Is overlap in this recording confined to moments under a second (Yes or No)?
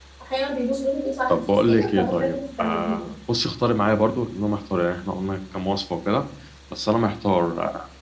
No